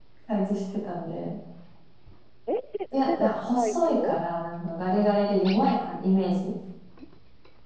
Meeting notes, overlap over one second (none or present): present